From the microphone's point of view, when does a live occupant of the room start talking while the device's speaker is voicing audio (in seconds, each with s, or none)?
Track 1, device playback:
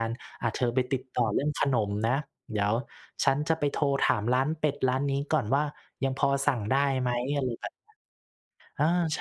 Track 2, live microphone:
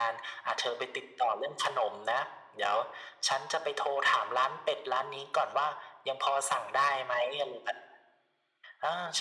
none